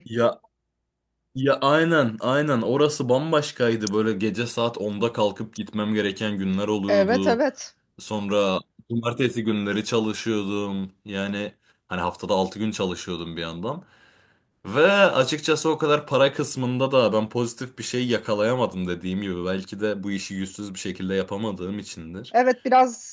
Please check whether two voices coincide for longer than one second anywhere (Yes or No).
No